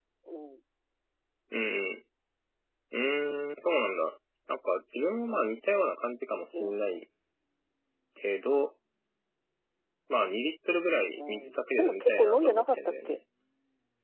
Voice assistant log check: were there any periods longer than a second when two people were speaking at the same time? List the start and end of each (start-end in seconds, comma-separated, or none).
11.2-13.2